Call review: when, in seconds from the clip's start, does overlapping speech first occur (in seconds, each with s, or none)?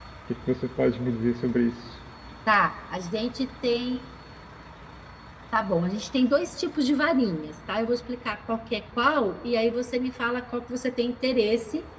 none